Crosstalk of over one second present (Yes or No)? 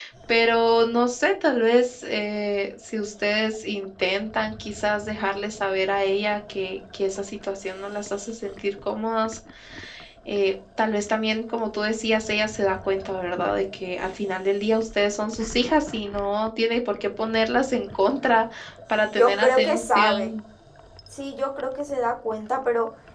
Yes